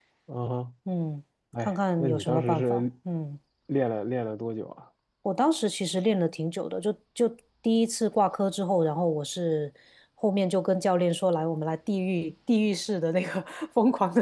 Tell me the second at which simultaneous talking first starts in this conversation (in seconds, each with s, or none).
1.6 s